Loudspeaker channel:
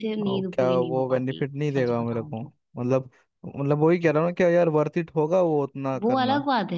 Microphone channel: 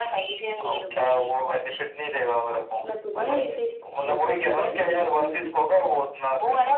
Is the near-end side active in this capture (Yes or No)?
Yes